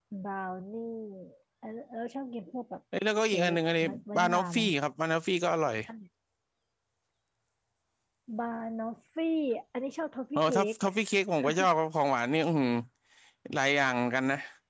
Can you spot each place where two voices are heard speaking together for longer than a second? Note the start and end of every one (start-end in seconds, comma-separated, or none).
3.3-4.6